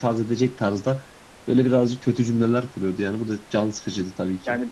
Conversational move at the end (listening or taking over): taking over